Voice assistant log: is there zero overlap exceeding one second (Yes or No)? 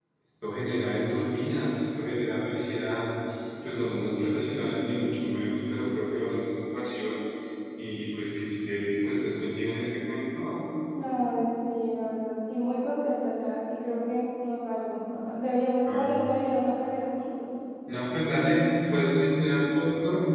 Yes